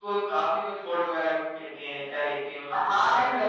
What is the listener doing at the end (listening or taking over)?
taking over